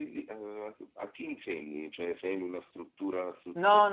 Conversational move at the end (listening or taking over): taking over